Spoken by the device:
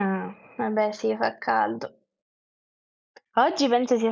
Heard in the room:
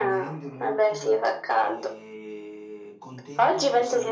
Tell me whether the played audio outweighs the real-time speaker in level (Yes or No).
Yes